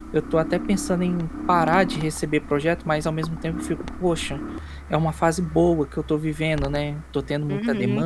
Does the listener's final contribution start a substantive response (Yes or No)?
Yes